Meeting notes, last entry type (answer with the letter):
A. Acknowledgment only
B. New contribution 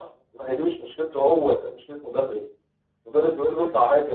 A